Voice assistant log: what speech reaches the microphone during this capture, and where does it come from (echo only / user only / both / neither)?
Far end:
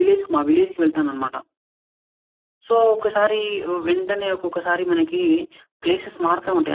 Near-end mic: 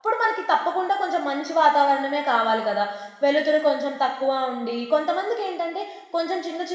user only